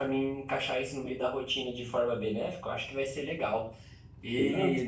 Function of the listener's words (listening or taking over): listening